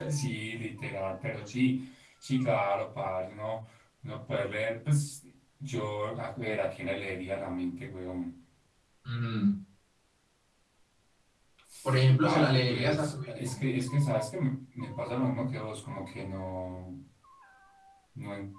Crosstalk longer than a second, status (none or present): present